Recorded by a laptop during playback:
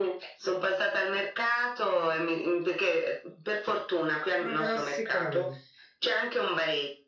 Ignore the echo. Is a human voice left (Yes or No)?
Yes